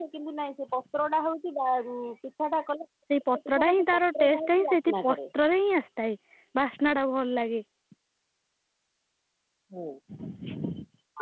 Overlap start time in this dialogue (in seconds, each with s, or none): 3.1 s